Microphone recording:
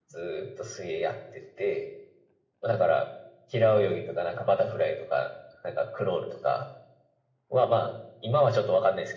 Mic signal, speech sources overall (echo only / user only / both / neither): echo only